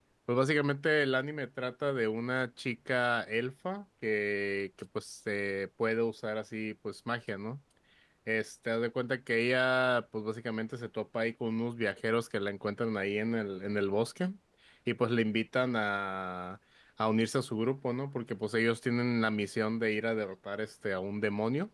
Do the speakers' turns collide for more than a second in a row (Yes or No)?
No